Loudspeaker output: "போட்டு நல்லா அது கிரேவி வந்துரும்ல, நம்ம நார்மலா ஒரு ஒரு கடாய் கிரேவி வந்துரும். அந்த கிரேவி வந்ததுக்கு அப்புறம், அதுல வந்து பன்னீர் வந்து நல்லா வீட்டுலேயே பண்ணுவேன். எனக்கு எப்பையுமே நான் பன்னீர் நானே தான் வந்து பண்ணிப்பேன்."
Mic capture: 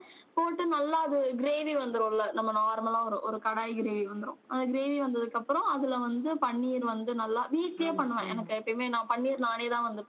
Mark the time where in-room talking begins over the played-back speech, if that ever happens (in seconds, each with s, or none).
7.8 s